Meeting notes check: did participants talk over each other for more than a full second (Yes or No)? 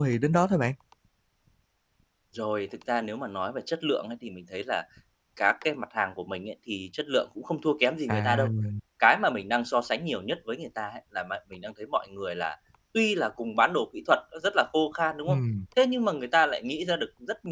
No